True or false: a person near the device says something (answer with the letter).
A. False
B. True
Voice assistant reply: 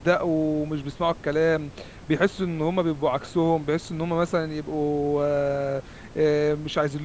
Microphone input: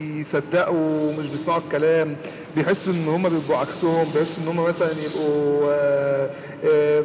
A